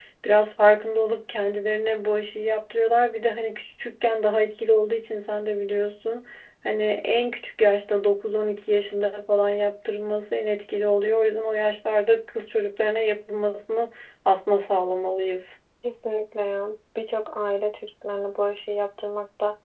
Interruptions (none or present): none